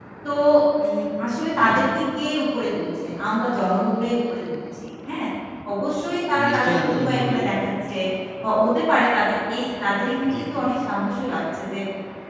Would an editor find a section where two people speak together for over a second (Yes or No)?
Yes